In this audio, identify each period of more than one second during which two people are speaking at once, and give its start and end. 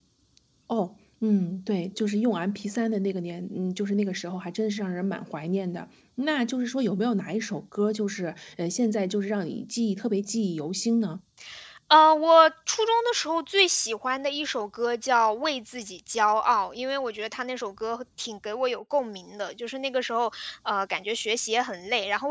none

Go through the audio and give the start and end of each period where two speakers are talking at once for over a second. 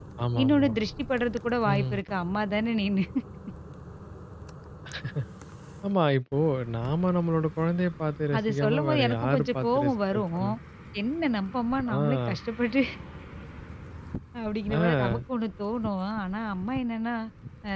8.4-10.4

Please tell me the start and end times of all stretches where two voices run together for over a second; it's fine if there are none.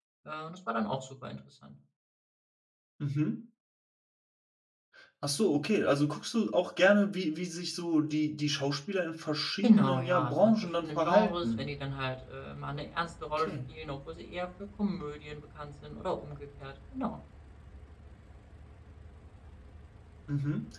9.6-11.6

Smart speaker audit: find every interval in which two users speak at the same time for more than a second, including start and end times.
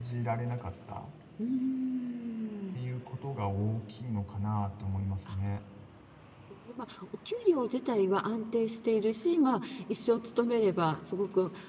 none

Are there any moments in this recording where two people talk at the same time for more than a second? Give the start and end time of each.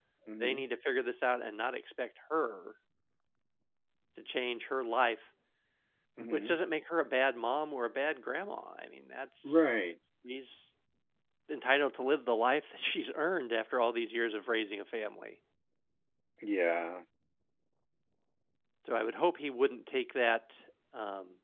none

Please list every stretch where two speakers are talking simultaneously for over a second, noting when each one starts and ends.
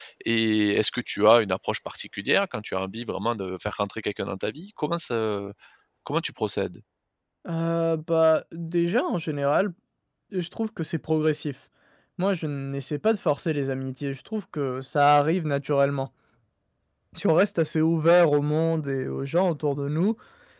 none

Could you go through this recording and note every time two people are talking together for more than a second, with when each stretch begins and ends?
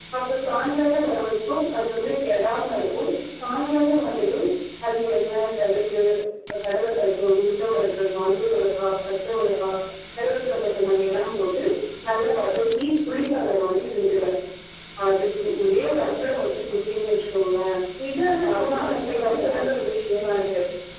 18.4-19.7

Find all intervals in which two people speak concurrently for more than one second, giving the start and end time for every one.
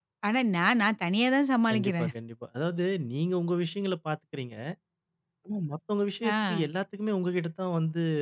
none

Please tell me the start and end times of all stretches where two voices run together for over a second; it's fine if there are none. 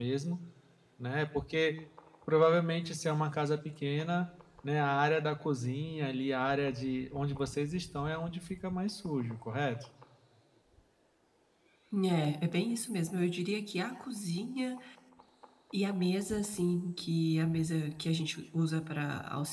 none

